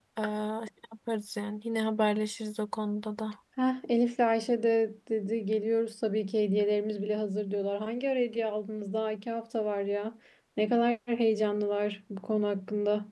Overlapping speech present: No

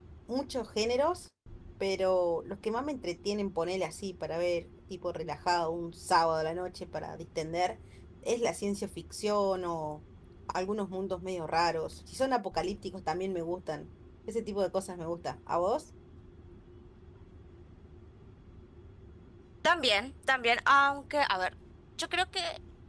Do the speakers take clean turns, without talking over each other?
Yes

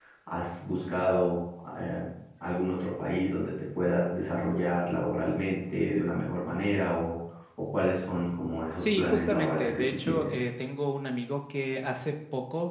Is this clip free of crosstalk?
No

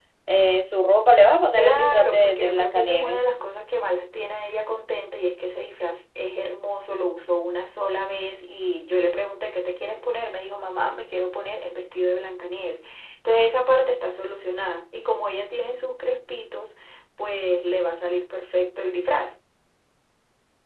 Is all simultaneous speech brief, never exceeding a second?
No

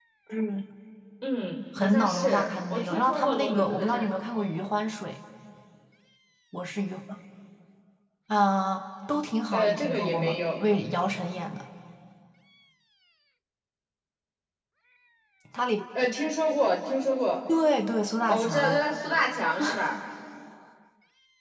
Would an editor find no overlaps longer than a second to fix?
No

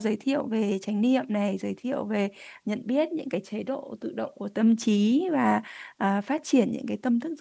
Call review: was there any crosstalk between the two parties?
No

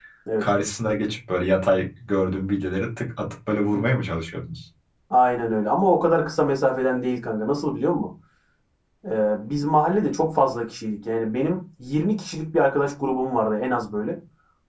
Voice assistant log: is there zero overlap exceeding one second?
Yes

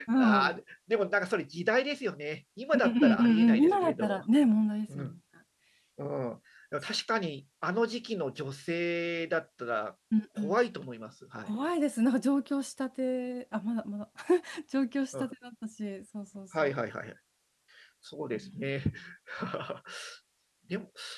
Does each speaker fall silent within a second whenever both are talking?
No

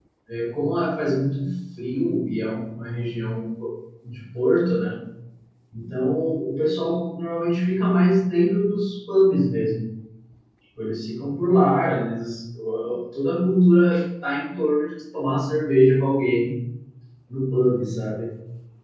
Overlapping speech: No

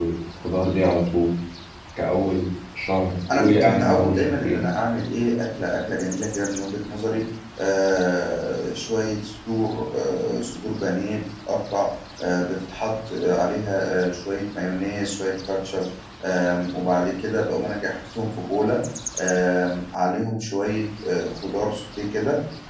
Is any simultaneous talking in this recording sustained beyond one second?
Yes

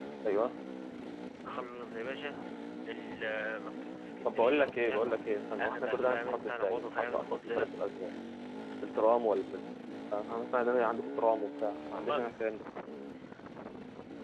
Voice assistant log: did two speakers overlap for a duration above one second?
Yes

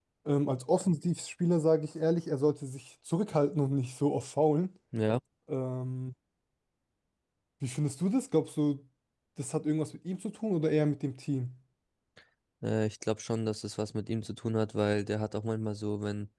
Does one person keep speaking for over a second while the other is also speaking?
No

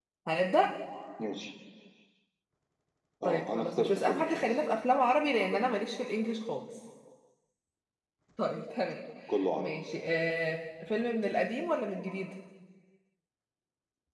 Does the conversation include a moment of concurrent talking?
Yes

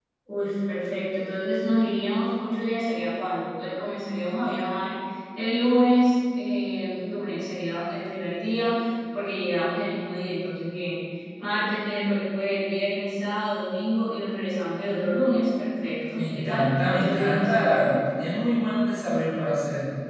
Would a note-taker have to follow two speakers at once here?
Yes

